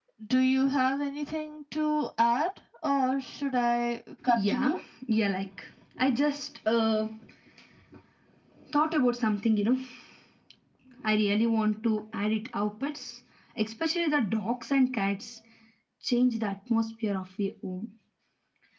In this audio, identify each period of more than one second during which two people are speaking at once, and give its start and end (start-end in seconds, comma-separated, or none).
none